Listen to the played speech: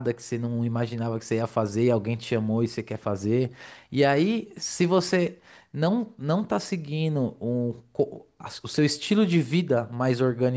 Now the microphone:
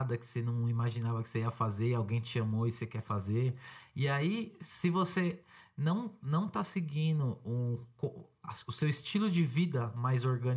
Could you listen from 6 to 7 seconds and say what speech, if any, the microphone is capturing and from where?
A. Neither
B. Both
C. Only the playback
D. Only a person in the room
C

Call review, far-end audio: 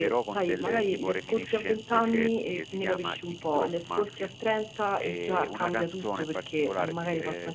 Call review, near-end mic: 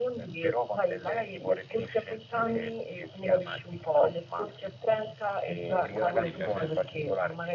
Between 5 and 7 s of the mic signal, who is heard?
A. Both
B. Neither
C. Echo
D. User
A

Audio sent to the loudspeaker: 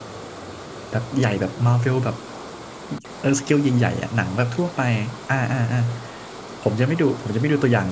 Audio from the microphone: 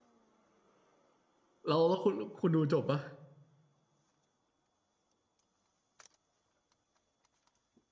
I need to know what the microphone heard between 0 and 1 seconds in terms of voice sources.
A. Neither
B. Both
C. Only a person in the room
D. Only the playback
A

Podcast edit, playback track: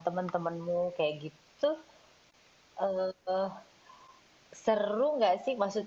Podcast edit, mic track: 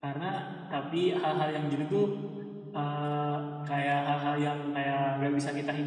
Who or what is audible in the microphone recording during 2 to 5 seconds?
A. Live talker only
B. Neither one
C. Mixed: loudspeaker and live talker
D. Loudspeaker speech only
A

